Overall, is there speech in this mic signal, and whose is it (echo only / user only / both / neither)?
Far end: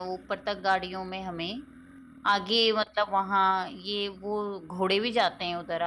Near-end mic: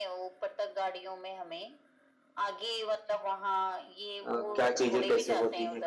both